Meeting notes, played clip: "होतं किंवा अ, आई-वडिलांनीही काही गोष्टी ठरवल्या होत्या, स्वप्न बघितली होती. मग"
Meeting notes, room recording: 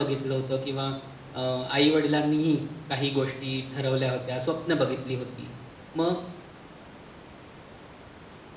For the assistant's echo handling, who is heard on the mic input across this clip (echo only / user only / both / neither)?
echo only